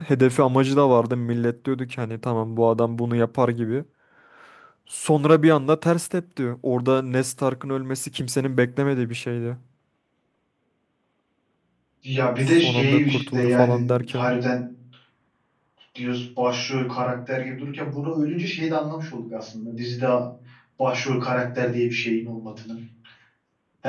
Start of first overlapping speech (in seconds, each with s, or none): 12.5 s